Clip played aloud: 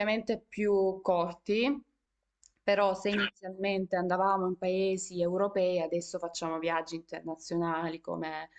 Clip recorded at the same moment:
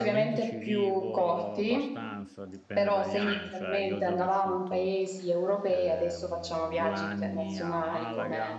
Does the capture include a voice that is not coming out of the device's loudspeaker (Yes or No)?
Yes